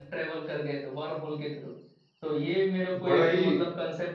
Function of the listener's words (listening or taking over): listening